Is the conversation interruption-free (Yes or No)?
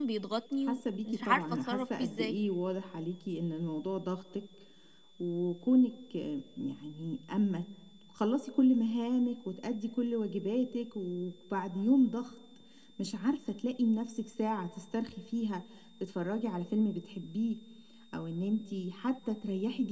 No